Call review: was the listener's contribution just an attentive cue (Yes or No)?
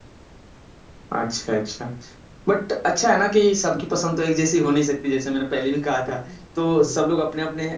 Yes